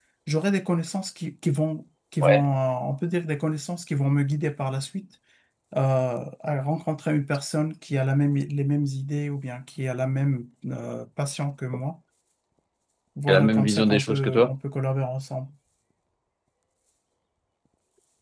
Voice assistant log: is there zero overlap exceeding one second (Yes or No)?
No